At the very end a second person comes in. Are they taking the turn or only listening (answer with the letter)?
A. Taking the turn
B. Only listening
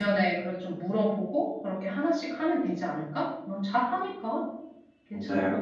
A